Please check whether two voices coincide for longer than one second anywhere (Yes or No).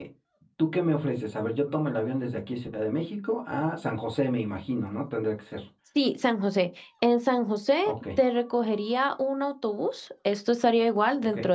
No